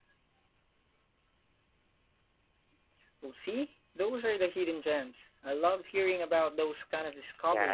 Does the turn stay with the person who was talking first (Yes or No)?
No